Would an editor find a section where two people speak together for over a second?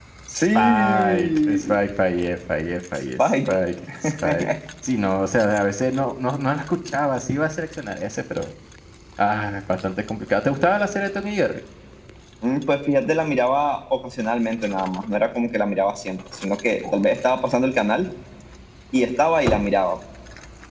Yes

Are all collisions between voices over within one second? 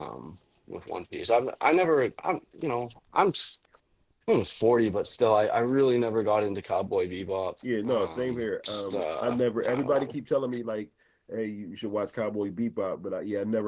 No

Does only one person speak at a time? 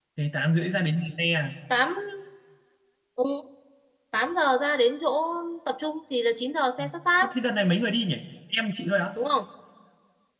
Yes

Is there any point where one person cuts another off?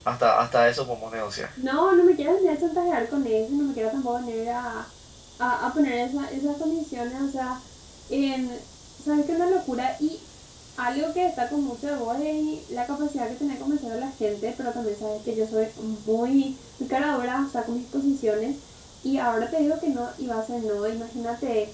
No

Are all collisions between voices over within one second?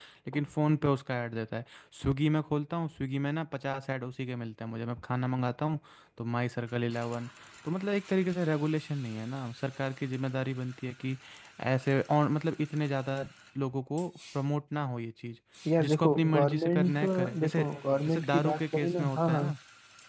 No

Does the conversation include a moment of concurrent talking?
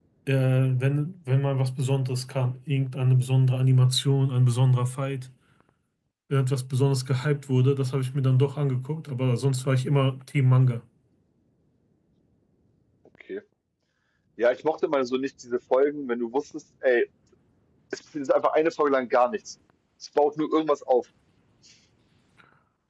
No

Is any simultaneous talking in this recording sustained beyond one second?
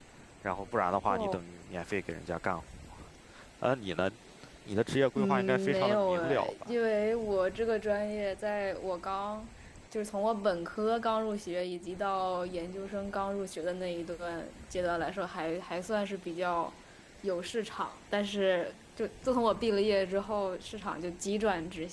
Yes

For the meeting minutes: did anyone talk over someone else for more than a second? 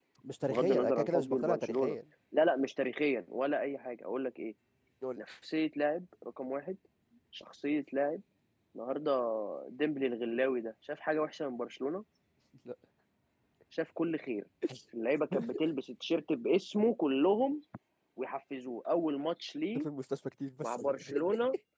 Yes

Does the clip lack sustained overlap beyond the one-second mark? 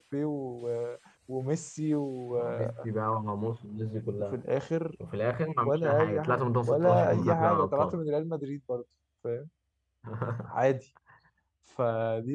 No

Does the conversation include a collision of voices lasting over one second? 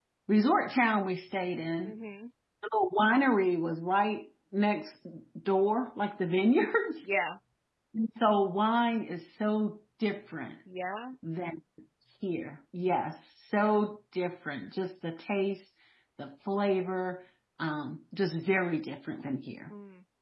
No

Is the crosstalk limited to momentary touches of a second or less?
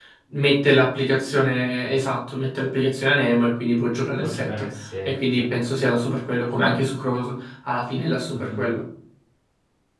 Yes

